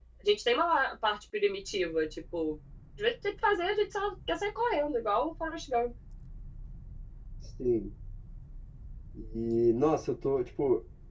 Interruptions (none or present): none